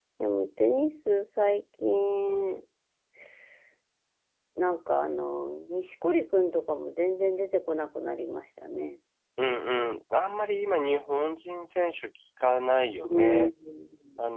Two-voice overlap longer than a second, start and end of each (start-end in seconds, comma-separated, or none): none